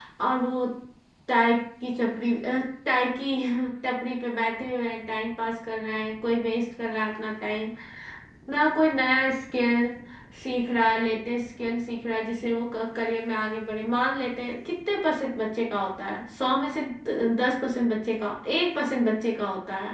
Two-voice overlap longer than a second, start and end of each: none

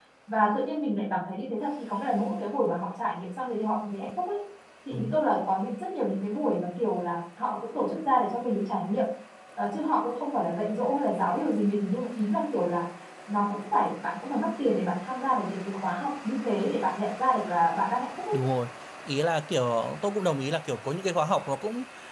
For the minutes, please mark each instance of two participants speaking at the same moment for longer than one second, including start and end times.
none

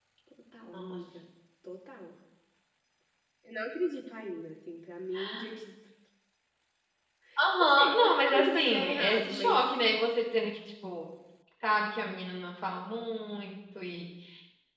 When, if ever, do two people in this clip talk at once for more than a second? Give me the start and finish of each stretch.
7.6-9.7

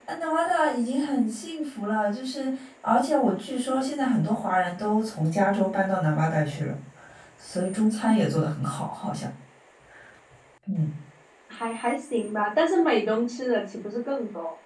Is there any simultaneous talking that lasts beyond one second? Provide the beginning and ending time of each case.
none

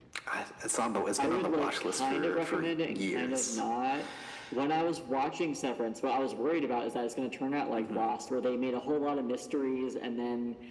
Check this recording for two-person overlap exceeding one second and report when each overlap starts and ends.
1.2-3.6

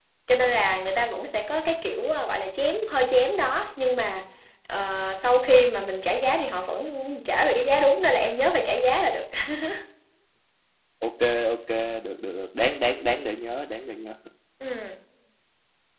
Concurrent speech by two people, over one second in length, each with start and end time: none

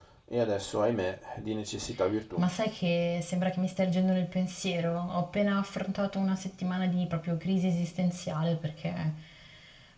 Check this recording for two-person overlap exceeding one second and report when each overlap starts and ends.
none

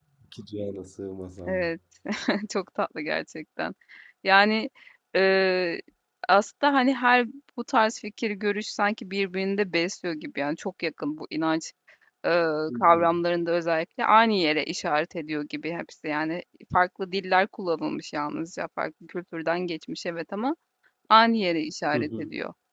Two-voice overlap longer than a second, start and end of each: none

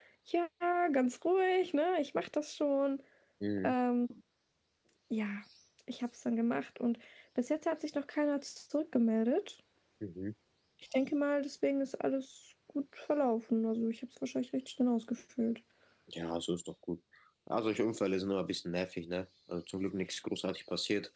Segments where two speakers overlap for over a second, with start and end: none

